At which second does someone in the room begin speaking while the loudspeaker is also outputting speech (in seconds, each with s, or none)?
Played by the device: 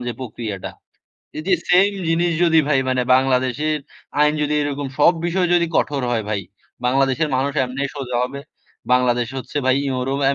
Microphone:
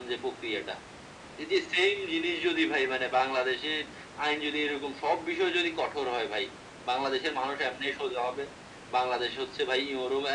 none